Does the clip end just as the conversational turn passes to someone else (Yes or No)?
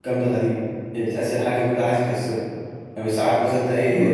No